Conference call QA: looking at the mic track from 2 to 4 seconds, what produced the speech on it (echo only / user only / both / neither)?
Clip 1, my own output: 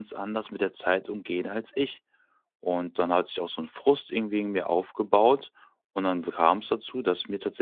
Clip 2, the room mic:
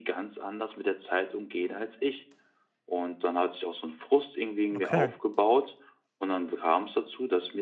echo only